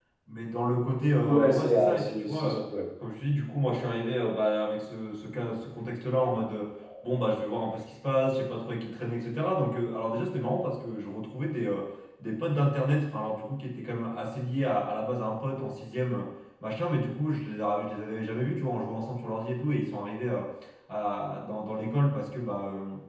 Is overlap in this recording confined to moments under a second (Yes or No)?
No